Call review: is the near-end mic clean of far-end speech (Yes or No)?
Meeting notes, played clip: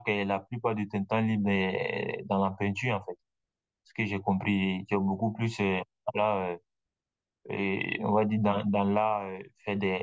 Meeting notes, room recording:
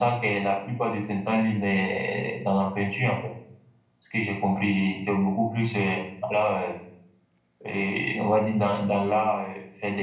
No